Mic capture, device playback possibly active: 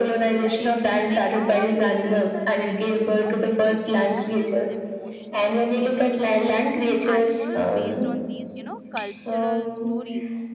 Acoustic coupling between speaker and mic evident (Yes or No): Yes